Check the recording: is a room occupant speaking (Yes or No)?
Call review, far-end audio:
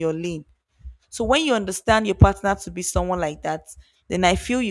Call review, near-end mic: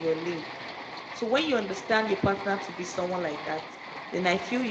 No